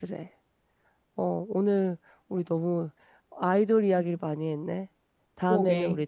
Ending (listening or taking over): listening